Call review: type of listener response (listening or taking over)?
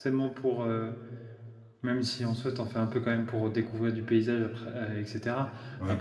listening